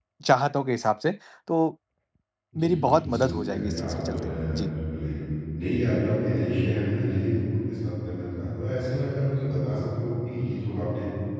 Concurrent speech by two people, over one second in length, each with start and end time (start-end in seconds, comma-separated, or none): 2.6-4.7